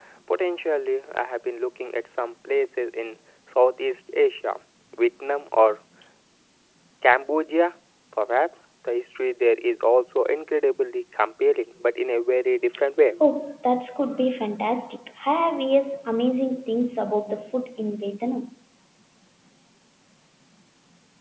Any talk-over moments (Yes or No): No